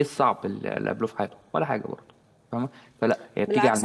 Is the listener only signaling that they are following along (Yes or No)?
No